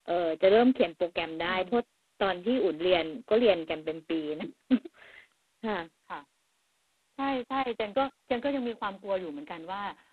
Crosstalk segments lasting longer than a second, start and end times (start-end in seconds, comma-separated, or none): none